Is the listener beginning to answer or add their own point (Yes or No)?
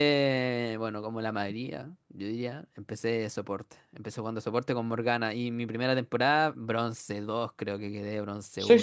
Yes